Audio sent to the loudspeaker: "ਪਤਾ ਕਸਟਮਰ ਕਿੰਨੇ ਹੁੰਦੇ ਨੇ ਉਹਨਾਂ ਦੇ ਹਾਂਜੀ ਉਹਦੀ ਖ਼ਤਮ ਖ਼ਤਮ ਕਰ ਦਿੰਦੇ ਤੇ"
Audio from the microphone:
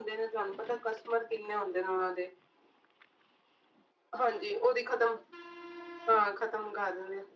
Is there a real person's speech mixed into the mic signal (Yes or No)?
No